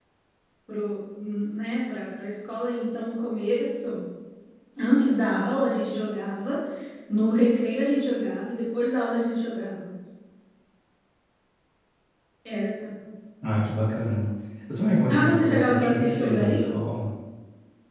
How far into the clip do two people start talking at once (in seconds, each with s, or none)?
15.1 s